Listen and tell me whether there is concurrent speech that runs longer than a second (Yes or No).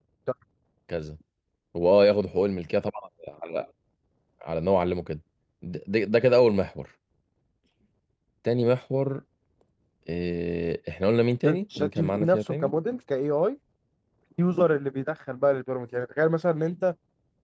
Yes